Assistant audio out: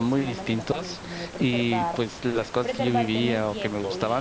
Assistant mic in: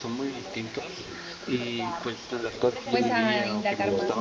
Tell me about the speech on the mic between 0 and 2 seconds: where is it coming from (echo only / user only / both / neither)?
echo only